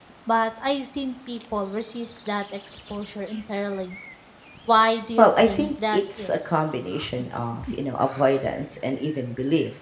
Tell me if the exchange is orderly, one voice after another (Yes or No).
No